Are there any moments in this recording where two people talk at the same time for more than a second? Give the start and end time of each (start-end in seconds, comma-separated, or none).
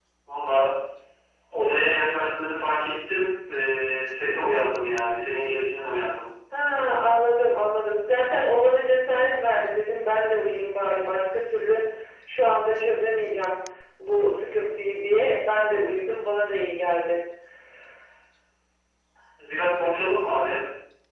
none